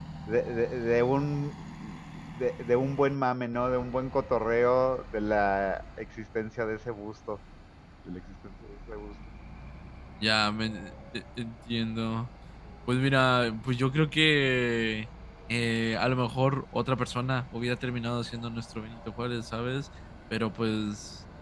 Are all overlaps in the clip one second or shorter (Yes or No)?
Yes